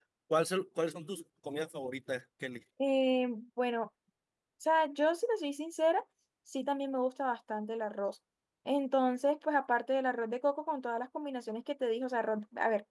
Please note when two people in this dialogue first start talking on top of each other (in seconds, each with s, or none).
none